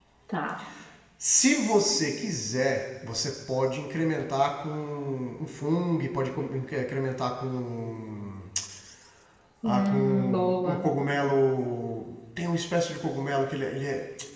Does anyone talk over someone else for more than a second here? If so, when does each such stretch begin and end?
9.6-10.9

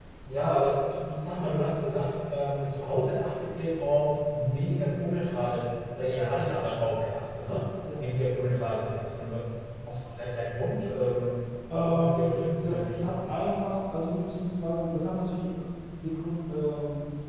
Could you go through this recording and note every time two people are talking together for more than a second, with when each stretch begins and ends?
11.7-13.2

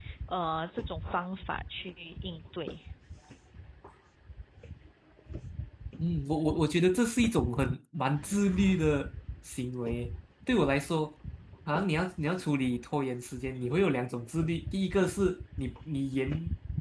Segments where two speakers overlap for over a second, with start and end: none

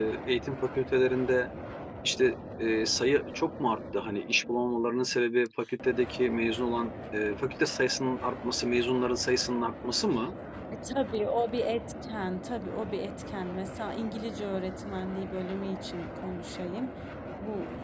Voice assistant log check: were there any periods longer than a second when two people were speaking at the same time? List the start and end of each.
none

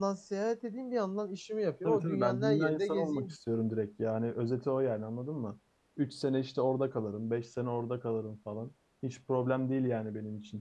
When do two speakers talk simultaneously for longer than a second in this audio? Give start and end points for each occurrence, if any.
1.8-3.4

